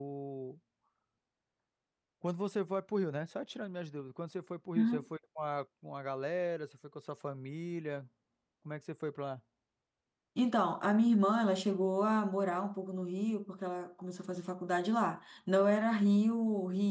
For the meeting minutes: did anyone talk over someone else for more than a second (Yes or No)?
No